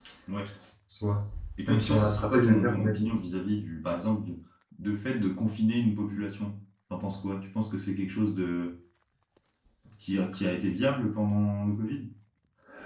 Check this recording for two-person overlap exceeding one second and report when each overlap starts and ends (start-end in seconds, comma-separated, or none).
1.7-3.0